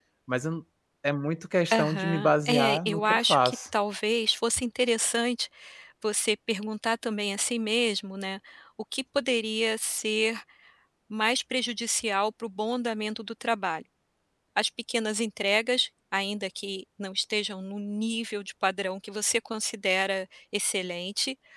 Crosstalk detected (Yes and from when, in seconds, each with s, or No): Yes, from 1.7 s